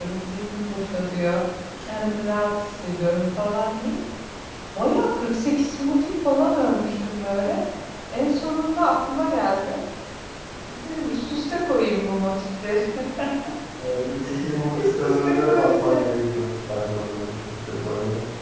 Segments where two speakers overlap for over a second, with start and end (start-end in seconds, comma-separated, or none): 14.7-16.0